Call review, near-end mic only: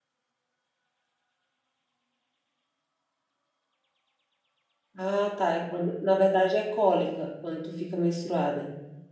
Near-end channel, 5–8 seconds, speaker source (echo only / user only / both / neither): user only